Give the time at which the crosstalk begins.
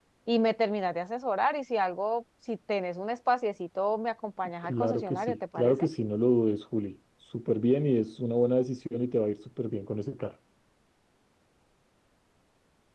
4.6 s

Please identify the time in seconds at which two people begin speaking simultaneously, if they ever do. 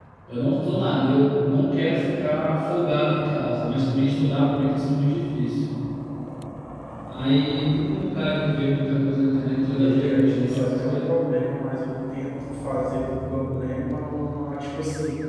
9.6 s

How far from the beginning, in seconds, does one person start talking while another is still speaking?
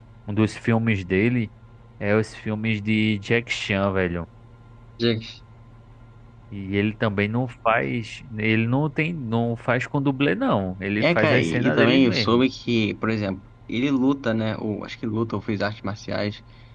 11.0 s

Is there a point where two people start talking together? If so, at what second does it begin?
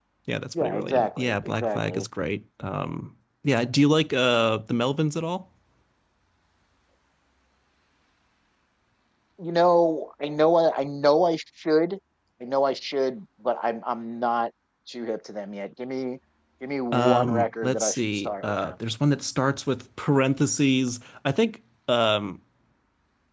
0.6 s

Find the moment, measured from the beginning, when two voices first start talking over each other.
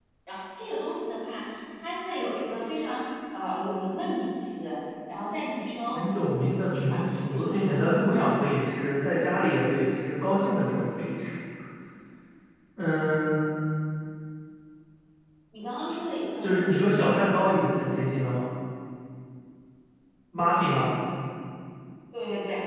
6.7 s

